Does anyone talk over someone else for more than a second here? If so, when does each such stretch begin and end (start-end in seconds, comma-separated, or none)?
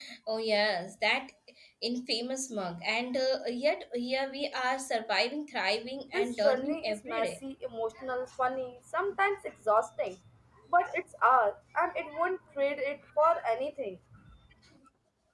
6.1-7.3